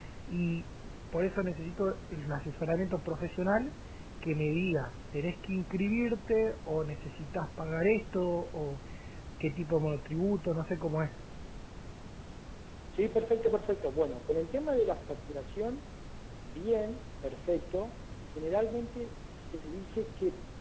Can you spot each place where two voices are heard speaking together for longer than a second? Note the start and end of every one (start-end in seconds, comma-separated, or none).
none